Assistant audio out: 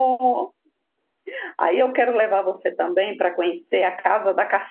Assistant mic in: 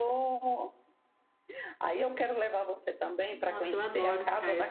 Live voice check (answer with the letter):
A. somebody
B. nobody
A